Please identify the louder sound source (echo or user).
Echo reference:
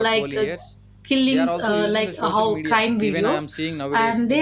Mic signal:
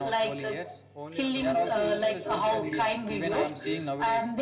echo